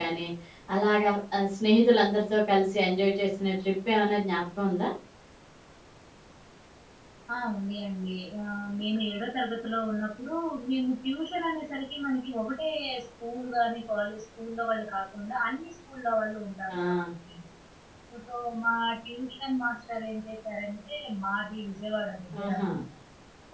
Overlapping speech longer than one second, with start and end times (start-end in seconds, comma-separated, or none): none